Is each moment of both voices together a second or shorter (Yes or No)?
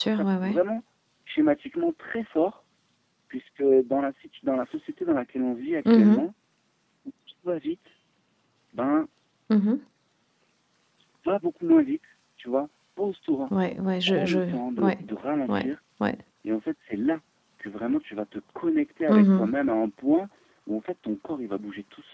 Yes